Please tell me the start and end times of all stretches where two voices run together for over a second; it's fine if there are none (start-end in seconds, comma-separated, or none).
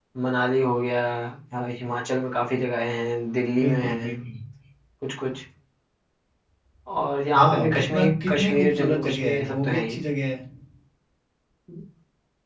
7.4-10.0